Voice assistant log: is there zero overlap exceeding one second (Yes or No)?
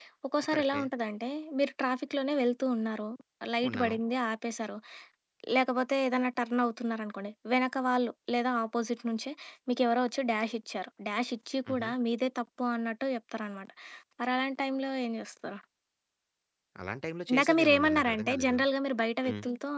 No